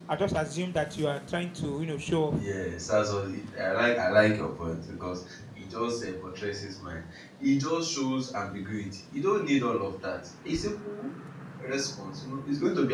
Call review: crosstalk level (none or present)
none